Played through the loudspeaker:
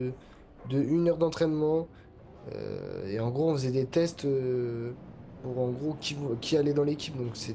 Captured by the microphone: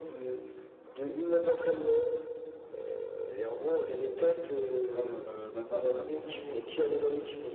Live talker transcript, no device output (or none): Comme, euh, bah, c'est un peu comme ils font les,